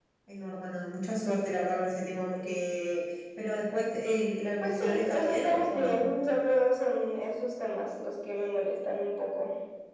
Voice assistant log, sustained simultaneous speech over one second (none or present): present